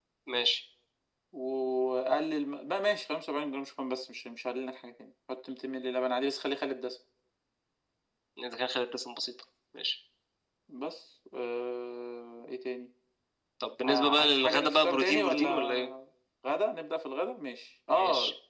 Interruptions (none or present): present